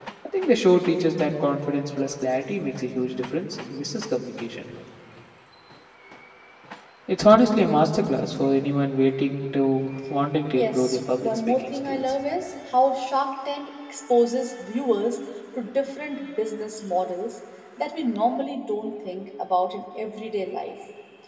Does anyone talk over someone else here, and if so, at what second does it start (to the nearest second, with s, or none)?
11 s